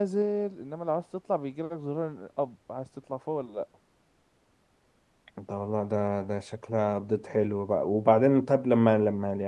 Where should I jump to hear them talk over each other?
none

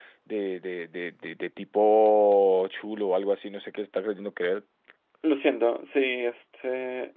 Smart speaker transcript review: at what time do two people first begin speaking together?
none

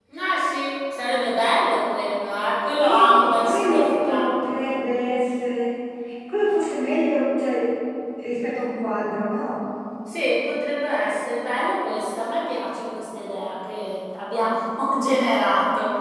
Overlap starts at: 2.8 s

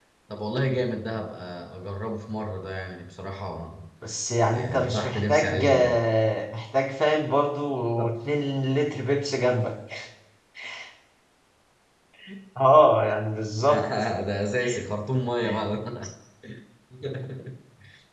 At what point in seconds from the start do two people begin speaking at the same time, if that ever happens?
4.5 s

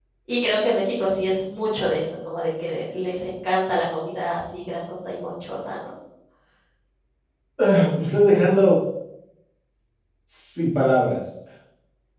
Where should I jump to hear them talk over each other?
none

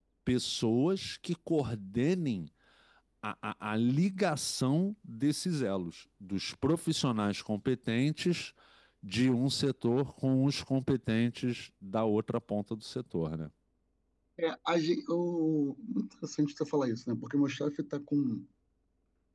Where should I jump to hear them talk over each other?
none

